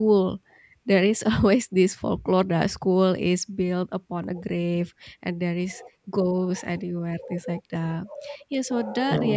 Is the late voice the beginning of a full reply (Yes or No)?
No